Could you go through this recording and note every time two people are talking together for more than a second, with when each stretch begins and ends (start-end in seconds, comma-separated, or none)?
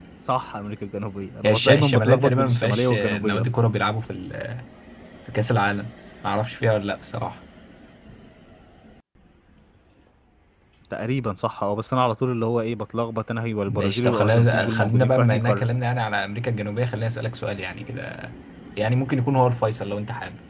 1.4-3.5, 13.7-15.7